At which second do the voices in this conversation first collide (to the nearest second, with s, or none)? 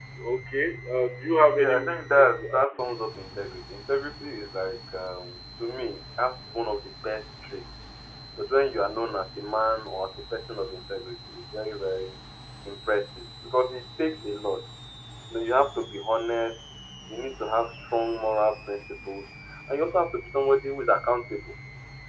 2 s